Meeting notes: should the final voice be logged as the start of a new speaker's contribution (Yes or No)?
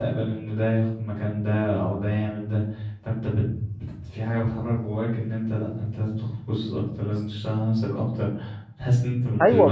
Yes